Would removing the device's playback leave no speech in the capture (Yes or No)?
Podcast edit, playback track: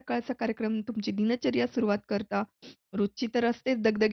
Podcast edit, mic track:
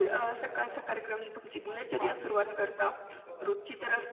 No